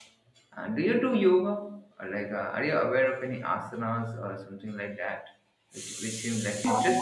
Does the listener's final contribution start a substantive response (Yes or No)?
Yes